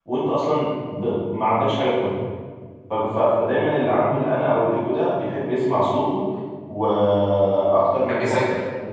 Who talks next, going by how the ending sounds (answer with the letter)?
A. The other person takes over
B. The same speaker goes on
B